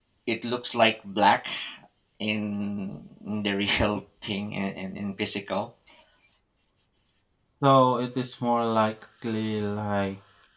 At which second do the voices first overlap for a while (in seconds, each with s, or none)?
none